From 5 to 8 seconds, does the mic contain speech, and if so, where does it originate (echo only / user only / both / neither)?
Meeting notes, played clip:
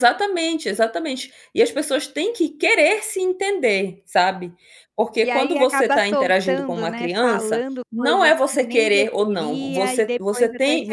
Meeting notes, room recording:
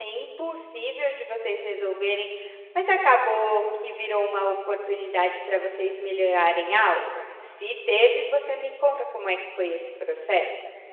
user only